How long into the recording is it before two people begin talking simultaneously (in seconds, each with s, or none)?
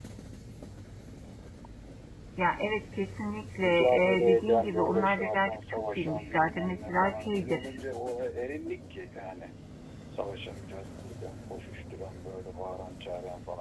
3.6 s